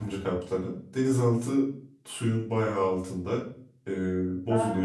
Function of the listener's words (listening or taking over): listening